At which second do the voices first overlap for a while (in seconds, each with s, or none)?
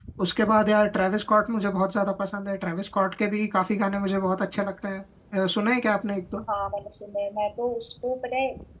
none